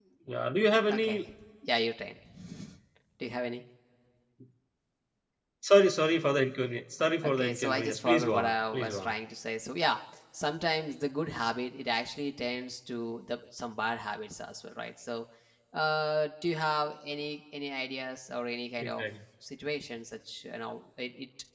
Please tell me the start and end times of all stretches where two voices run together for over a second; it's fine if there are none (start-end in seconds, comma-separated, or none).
7.2-9.1